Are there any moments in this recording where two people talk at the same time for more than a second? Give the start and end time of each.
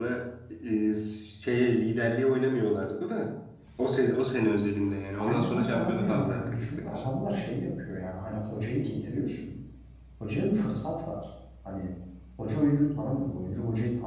5.2-7.0

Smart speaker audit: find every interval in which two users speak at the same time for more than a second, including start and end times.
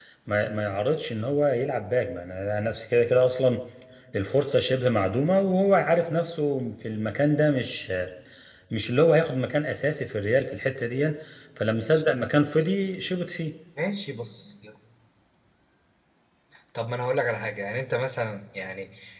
none

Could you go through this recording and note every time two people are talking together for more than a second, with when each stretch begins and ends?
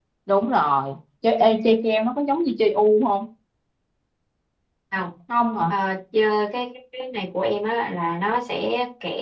none

